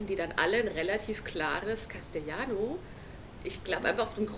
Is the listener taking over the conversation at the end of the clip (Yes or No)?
No